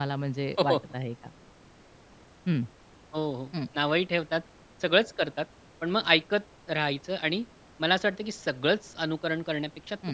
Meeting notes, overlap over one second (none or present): none